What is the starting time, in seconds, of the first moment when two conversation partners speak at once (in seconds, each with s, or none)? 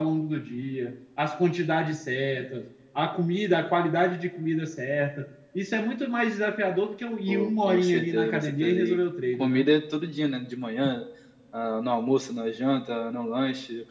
7.3 s